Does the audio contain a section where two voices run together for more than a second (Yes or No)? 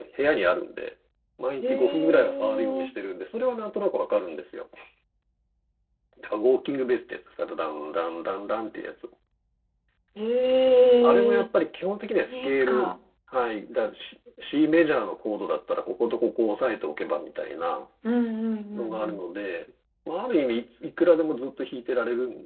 Yes